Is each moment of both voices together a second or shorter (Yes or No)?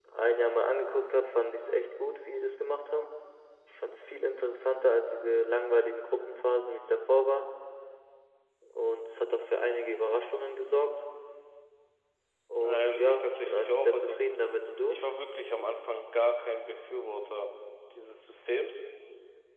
No